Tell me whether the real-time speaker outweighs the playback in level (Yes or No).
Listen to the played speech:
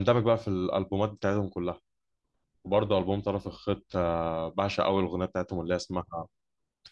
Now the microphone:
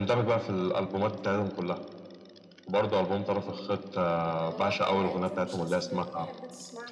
No